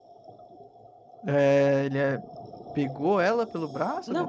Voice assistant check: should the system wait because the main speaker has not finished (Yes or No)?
No